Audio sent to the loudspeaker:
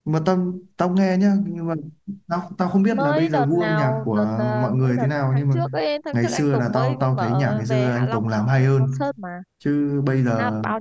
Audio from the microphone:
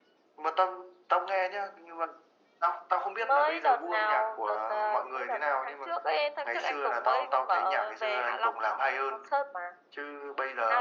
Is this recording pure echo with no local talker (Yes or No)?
Yes